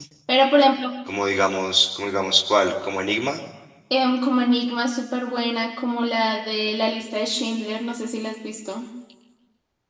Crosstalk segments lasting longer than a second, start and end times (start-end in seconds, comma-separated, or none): none